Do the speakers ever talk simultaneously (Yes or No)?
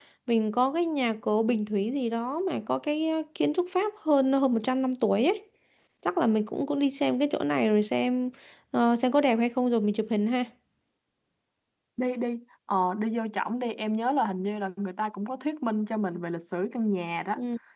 No